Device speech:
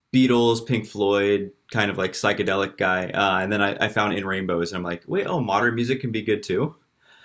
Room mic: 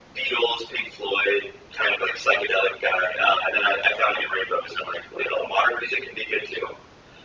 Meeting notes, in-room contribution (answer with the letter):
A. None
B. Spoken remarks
A